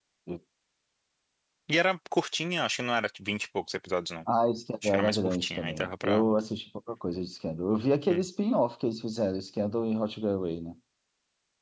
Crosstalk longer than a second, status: present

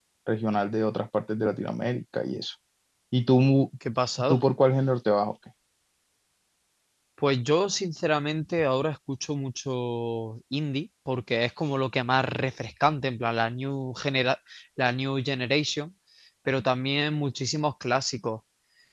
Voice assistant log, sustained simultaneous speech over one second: none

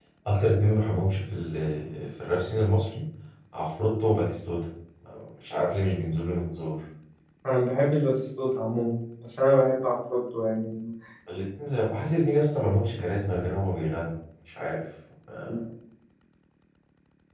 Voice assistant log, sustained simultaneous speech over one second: none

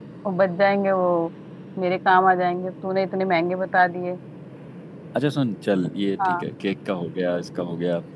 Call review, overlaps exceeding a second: none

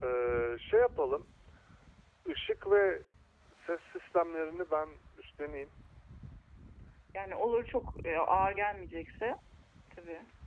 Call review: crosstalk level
none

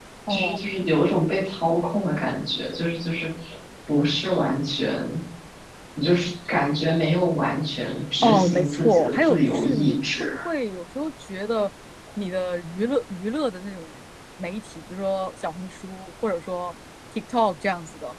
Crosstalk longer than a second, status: present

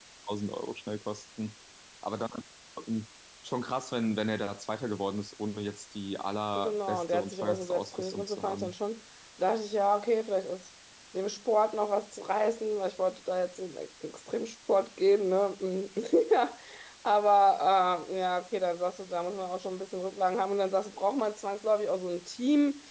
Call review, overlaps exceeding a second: present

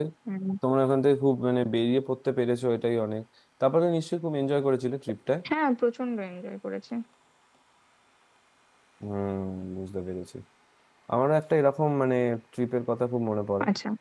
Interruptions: none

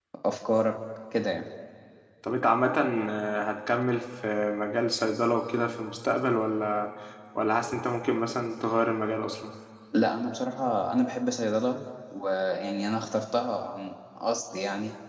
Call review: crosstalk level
none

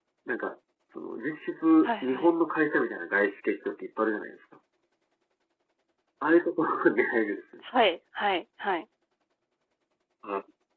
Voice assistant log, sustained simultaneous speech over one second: none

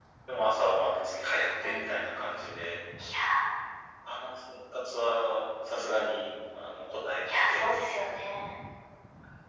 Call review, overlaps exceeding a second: none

